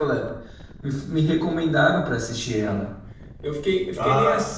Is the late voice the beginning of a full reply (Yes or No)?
No